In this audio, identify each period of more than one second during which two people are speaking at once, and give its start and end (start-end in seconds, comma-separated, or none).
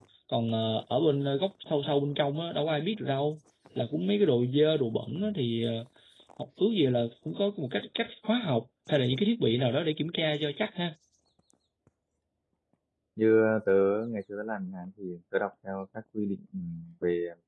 none